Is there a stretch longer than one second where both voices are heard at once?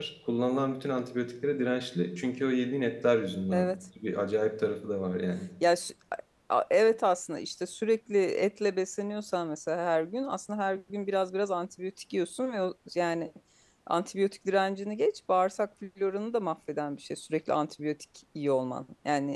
No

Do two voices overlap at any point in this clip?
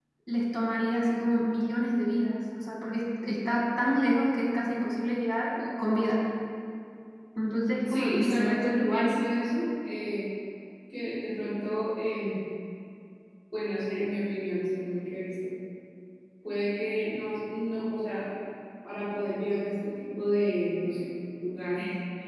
Yes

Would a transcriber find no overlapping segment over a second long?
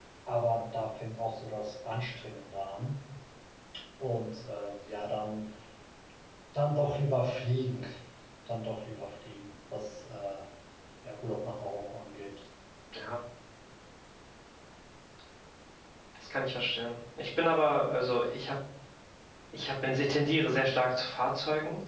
Yes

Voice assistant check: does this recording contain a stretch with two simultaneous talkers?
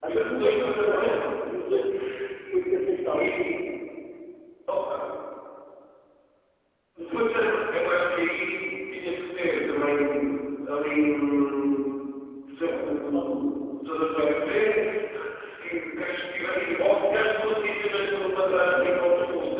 Yes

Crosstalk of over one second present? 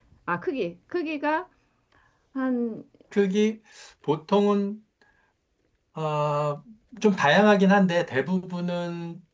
No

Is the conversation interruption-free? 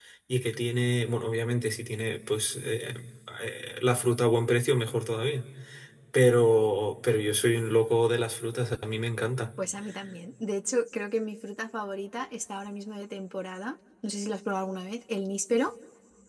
Yes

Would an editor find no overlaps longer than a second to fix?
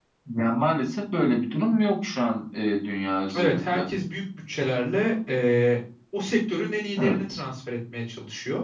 Yes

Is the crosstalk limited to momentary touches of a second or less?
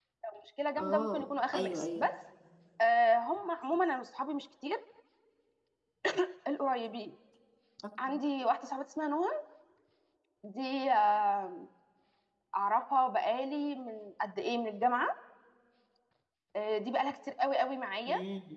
No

